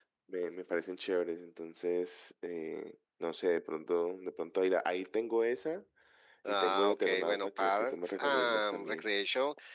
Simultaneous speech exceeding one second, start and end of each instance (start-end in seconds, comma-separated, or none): 6.5-9.1